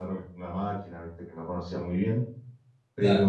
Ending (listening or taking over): listening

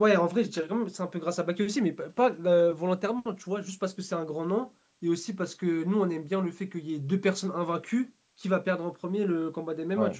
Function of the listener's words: listening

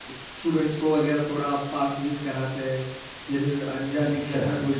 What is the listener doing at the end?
listening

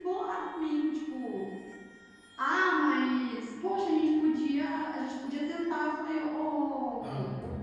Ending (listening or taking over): listening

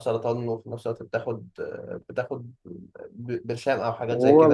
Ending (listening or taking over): taking over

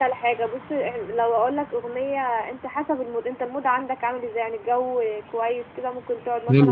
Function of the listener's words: listening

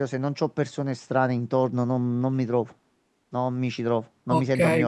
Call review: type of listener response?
taking over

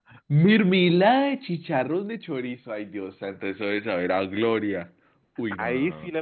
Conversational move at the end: taking over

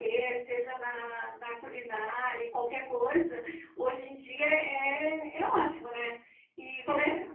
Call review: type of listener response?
listening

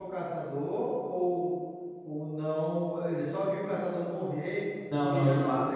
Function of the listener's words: taking over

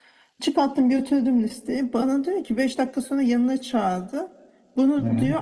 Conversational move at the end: listening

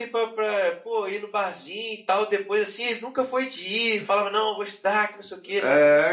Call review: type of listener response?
taking over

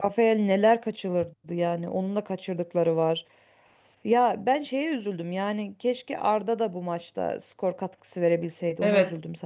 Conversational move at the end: taking over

